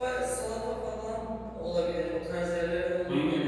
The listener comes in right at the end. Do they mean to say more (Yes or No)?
Yes